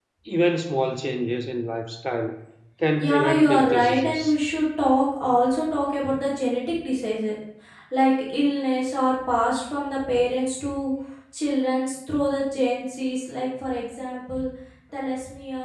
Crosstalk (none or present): present